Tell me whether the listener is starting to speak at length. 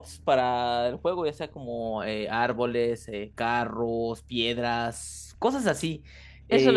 Yes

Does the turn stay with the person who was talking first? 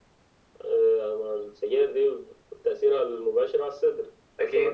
Yes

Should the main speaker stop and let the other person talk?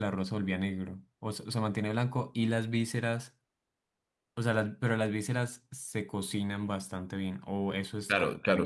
Yes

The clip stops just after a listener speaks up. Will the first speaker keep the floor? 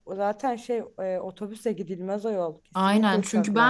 No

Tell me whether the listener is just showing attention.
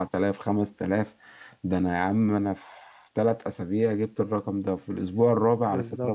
Yes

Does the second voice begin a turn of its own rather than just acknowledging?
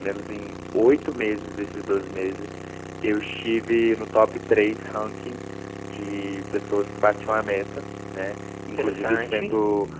No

